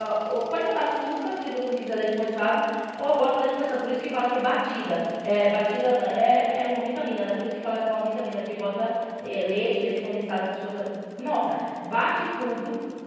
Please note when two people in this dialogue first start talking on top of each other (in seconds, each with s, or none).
none